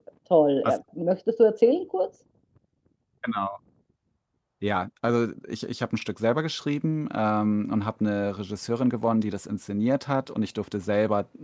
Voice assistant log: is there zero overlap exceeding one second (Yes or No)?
Yes